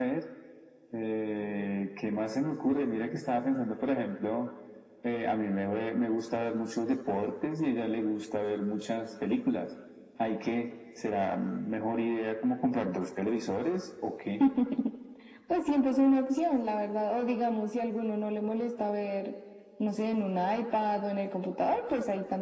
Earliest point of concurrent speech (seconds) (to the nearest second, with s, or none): none